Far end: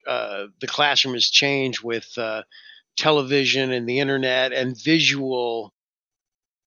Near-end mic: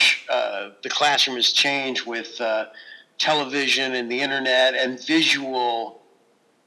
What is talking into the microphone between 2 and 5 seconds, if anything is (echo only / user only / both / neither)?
echo only